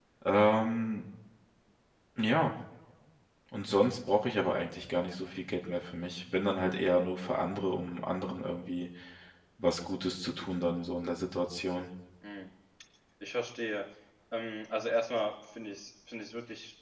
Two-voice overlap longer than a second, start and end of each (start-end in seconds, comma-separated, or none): none